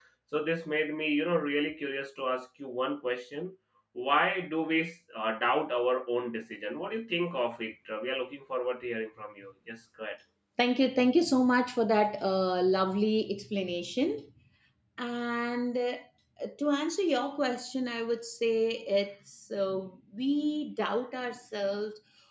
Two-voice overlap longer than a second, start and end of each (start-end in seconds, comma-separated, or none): none